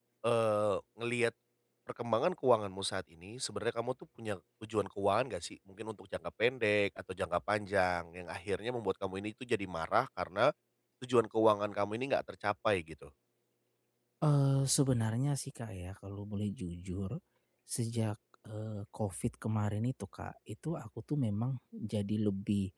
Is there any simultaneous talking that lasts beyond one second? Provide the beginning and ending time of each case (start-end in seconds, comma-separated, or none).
none